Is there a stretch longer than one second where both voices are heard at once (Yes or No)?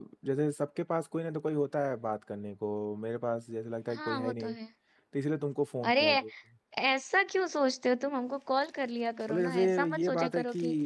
Yes